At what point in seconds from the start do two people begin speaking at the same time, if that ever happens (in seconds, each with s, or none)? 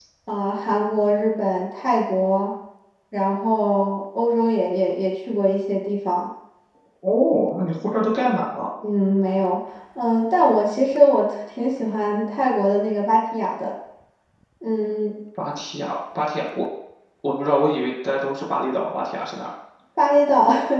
none